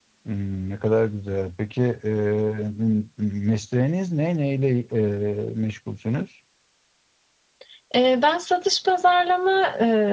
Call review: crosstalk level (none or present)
none